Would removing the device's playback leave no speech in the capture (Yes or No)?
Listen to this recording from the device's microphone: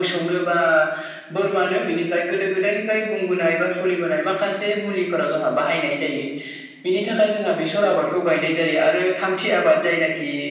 Yes